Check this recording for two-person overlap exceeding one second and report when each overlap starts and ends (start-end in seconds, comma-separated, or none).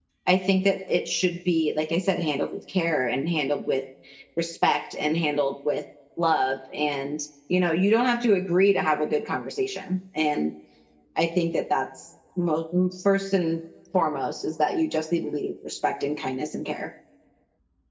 none